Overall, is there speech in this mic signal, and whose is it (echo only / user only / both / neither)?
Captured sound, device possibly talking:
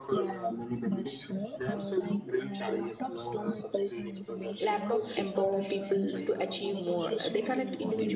both